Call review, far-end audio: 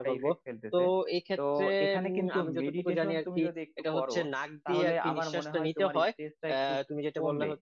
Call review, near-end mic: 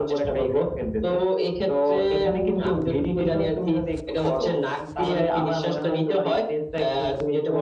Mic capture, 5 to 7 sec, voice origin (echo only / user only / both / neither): echo only